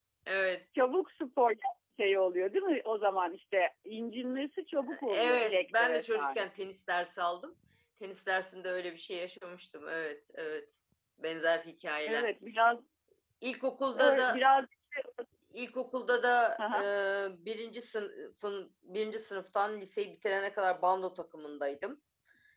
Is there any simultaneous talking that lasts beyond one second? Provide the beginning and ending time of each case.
5.1-6.4

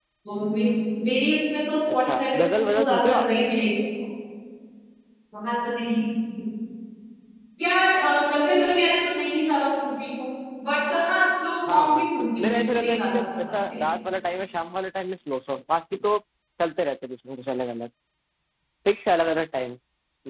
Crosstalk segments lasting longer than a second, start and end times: 1.9-3.3, 11.7-13.8

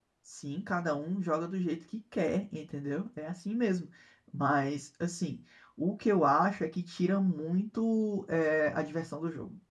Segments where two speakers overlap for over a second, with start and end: none

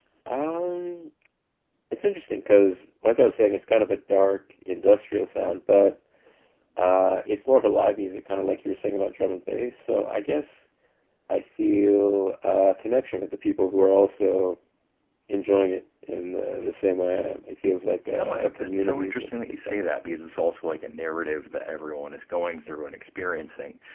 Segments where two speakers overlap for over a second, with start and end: 18.1-20.2

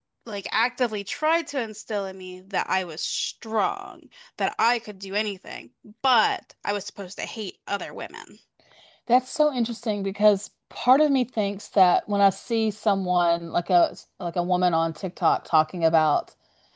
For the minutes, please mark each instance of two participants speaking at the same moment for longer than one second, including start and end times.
none

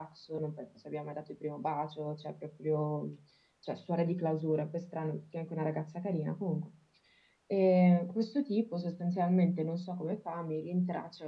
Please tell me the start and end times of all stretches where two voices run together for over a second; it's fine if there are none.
none

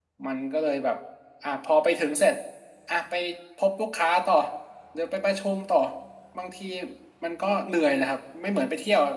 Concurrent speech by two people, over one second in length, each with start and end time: none

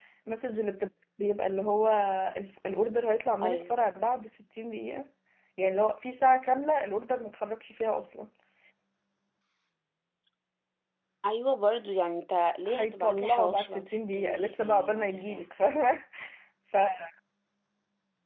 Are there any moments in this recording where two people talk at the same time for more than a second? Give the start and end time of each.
12.7-15.4

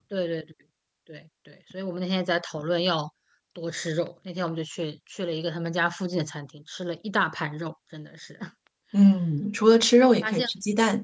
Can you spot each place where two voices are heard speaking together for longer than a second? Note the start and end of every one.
none

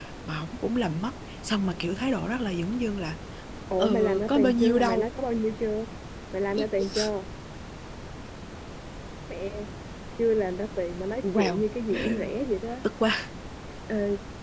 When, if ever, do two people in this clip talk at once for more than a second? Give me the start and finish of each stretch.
3.8-5.1

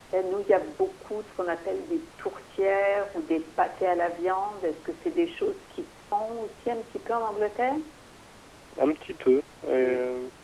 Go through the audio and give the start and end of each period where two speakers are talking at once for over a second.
none

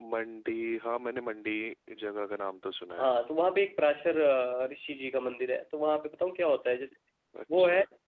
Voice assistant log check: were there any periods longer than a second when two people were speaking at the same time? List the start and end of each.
none

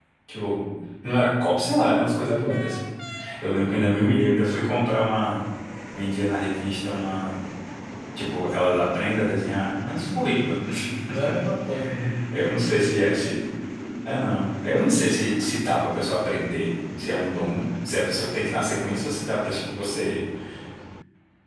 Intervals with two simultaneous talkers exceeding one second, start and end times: none

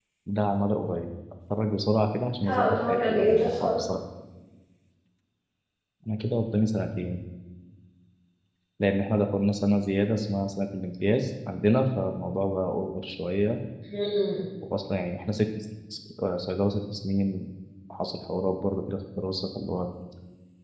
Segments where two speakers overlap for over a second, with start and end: 2.4-3.8

